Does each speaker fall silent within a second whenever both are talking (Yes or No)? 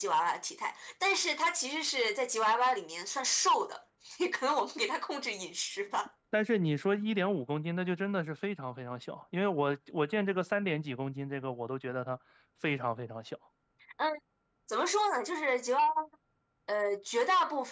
Yes